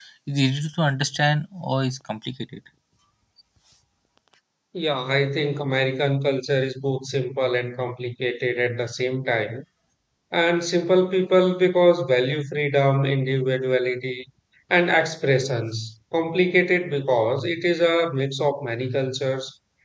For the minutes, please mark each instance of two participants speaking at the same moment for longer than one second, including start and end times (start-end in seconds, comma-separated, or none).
none